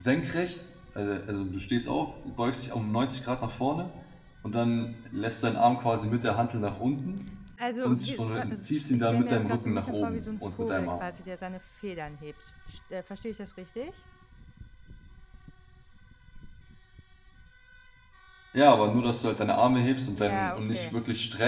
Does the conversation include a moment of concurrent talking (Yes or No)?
Yes